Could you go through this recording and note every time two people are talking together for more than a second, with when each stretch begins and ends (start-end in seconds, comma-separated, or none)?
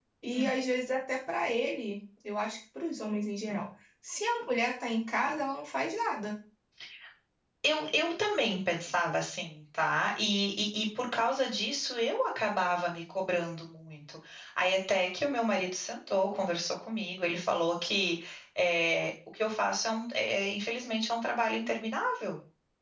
none